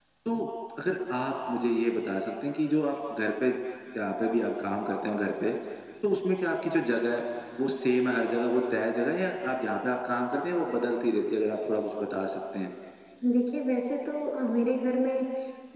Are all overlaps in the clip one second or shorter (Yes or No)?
Yes